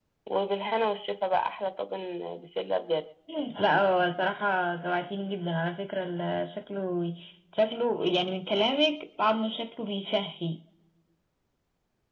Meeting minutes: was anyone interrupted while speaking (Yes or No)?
No